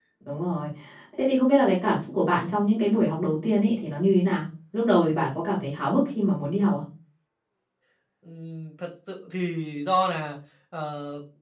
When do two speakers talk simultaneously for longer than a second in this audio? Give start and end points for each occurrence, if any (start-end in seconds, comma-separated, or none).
none